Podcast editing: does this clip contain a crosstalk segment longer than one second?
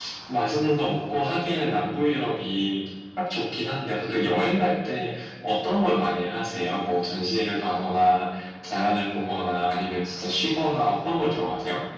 No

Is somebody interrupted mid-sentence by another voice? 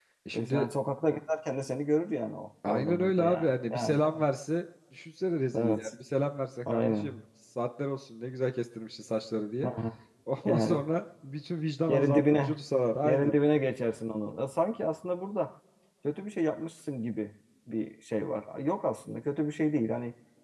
Yes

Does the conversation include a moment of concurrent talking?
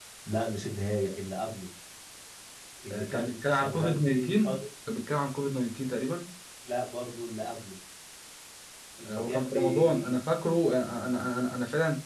Yes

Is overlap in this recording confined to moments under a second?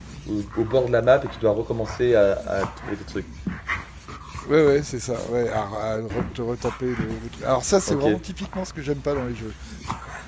Yes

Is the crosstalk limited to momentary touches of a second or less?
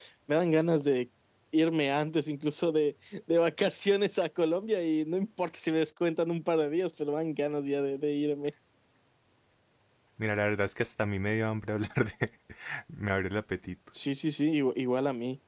Yes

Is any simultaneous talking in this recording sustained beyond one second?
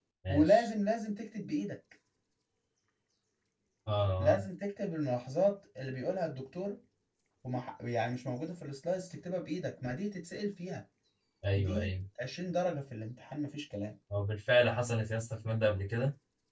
No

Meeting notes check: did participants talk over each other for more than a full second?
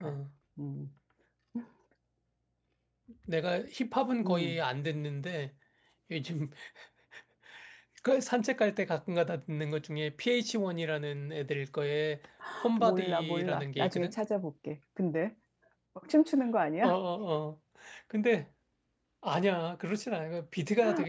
Yes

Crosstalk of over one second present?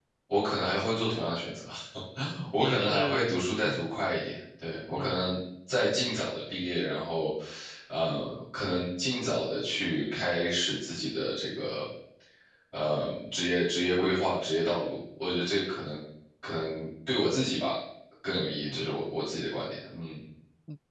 Yes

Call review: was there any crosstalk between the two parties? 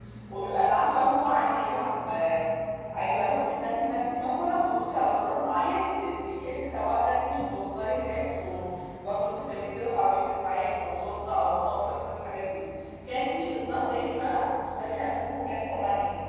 No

